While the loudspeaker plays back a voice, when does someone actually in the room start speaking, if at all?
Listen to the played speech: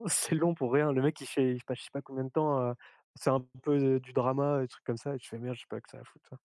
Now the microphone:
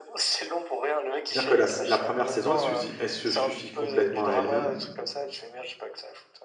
1.3 s

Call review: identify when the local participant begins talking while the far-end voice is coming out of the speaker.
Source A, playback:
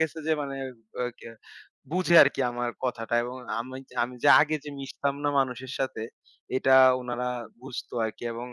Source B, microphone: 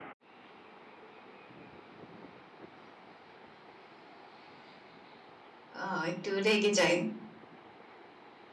5.8 s

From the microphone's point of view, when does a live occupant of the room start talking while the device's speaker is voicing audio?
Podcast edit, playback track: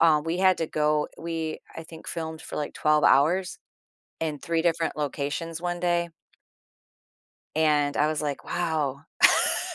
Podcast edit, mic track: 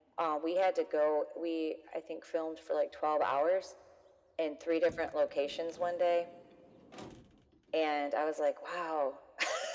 none

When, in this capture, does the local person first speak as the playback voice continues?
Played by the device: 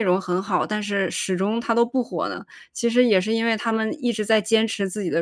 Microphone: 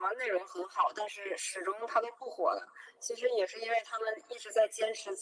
none

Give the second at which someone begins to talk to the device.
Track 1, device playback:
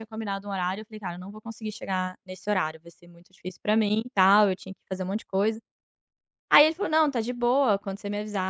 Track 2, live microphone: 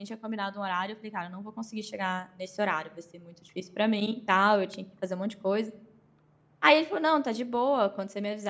none

